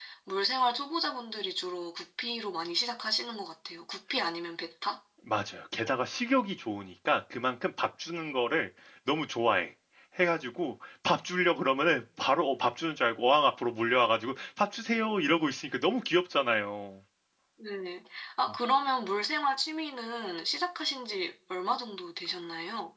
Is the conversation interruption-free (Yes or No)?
Yes